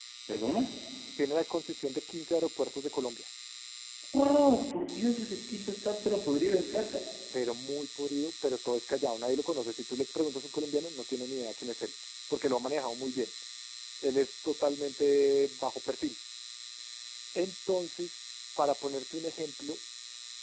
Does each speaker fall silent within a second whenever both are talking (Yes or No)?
Yes